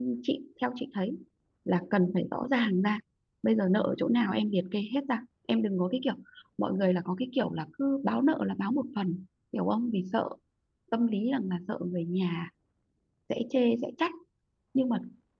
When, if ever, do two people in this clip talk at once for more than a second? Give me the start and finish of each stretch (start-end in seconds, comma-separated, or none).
none